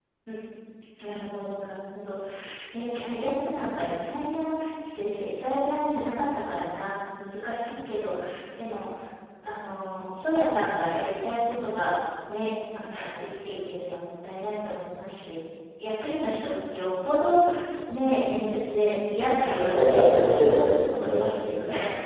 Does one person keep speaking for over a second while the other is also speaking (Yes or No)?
Yes